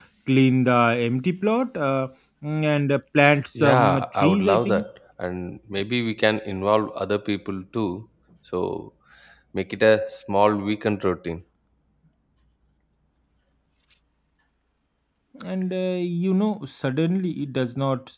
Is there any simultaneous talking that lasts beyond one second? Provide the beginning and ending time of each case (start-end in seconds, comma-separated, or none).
3.6-4.8